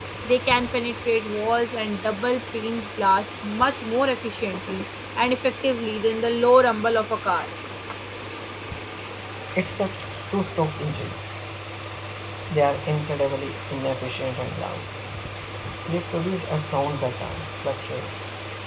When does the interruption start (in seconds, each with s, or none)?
none